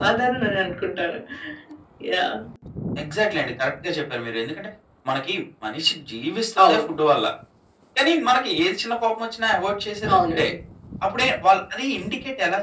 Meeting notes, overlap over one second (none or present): none